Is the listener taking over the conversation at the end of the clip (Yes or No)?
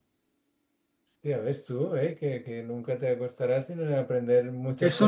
Yes